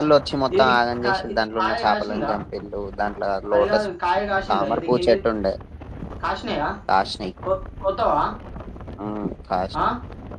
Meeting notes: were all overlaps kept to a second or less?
No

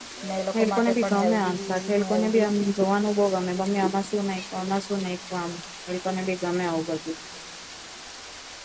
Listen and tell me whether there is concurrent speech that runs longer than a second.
Yes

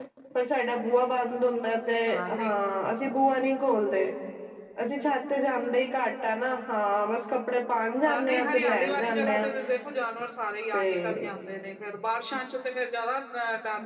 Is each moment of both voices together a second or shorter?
No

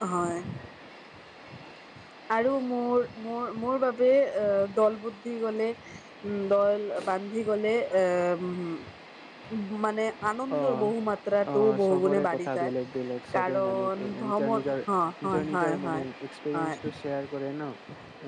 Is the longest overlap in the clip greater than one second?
Yes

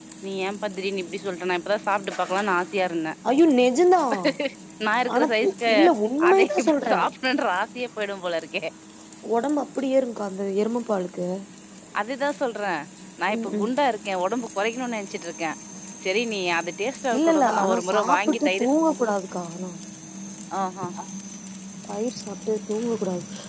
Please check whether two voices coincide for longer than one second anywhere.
Yes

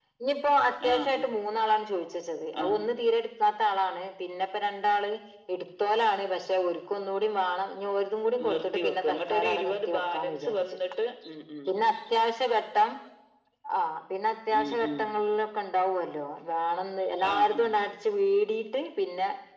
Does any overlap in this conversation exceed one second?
Yes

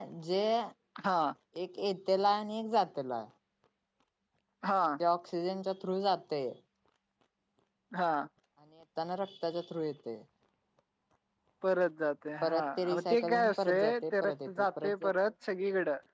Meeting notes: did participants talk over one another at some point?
Yes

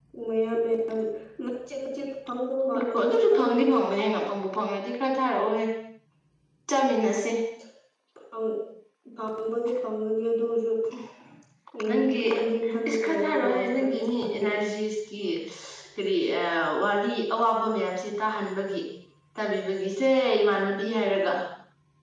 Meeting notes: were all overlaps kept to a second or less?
No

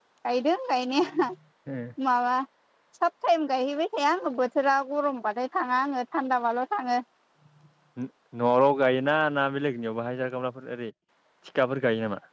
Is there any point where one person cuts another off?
No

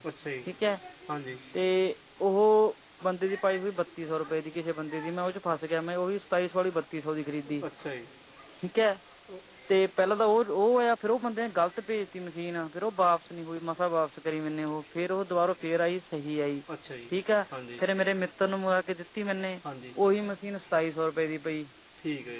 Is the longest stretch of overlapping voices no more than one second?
Yes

